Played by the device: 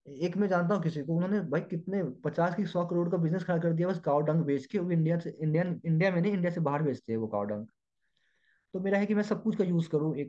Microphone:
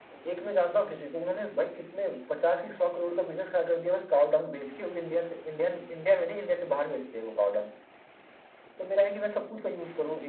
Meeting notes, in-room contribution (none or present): none